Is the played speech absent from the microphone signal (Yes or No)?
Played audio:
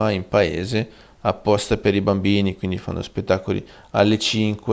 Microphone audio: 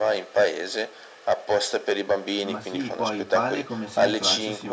No